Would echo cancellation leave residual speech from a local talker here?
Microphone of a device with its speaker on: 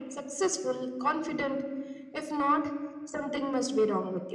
No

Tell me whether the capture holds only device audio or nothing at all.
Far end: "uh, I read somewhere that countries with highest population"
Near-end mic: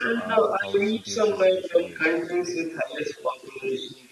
No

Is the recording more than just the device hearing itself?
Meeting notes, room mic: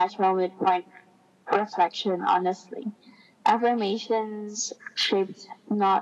No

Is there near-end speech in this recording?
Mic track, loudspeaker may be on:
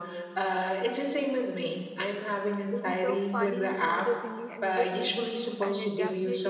Yes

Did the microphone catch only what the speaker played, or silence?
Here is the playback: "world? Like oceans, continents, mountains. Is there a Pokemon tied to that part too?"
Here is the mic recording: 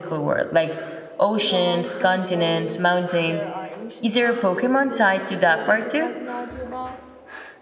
No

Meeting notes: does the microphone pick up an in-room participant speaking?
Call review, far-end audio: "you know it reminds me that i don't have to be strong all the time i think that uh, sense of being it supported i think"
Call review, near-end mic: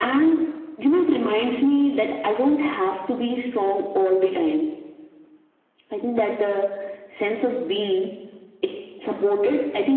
No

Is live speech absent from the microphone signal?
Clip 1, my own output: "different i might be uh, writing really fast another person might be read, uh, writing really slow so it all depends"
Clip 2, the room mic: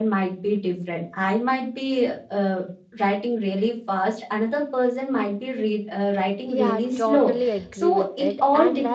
No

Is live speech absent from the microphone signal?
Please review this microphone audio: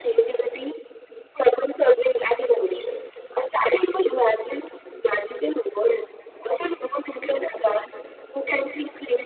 Yes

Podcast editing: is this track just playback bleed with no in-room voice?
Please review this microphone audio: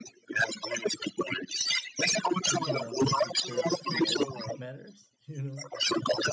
No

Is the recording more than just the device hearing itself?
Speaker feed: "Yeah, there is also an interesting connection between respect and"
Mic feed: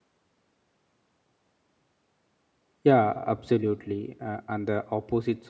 Yes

